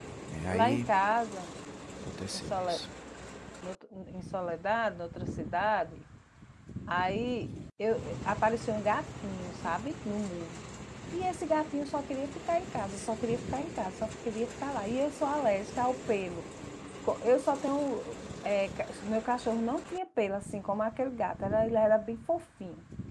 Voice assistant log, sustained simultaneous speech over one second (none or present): none